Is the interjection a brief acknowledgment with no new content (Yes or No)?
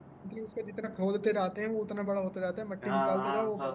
No